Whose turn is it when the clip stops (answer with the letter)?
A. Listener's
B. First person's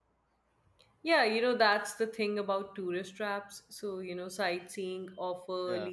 B